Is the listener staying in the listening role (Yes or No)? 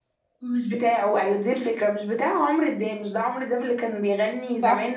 Yes